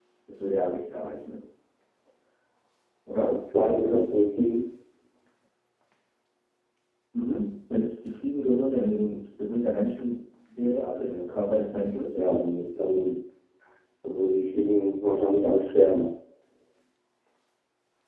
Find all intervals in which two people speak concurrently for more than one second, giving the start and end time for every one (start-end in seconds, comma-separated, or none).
none